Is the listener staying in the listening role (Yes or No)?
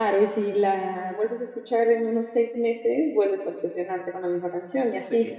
No